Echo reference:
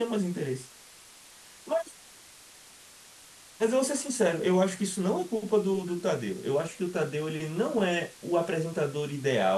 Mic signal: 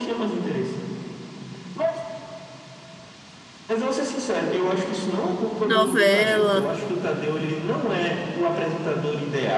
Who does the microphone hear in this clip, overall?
both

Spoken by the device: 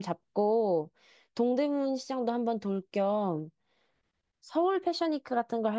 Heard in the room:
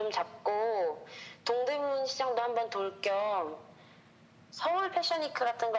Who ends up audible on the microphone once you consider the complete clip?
echo only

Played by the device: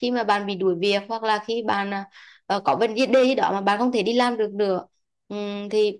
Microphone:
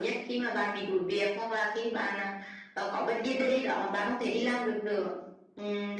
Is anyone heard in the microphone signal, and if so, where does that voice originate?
echo only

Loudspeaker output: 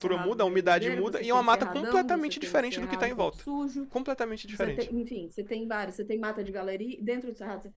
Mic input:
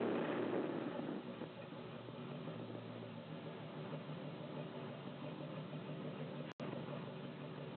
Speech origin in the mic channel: neither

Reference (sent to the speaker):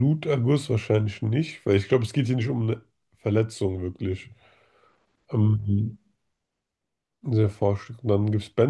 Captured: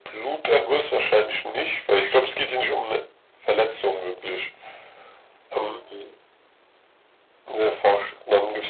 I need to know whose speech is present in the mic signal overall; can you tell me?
echo only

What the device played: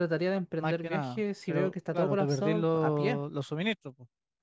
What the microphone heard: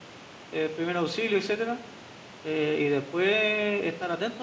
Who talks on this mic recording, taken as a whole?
user only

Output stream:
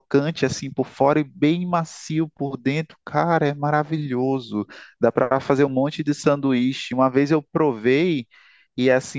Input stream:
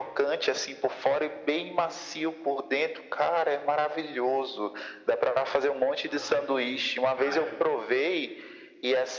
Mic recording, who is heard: both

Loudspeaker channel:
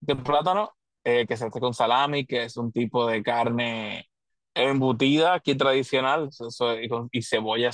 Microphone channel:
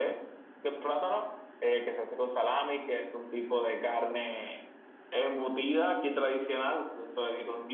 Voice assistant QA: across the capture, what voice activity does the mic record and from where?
echo only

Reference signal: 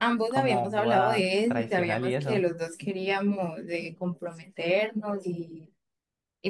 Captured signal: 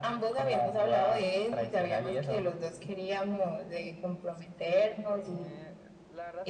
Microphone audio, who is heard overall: both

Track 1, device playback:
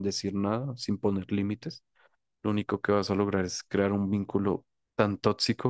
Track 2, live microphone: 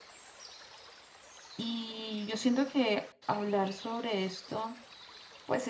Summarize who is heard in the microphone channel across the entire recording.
user only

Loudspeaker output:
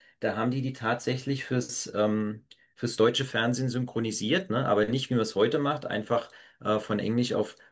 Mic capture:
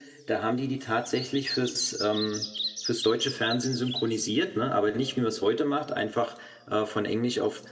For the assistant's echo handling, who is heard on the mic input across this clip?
echo only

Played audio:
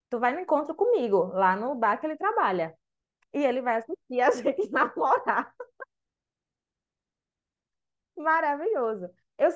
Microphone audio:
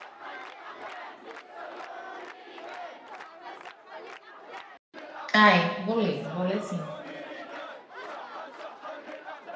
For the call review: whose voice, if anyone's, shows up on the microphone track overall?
user only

